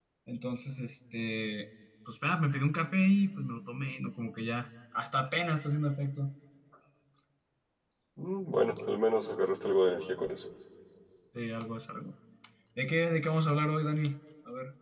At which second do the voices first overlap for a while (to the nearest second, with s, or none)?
none